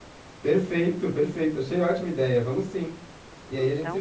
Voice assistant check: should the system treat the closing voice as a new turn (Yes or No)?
No